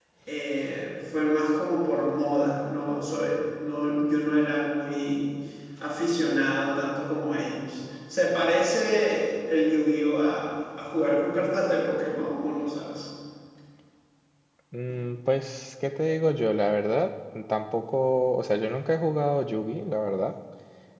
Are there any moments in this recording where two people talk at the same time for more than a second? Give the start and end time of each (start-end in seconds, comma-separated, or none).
none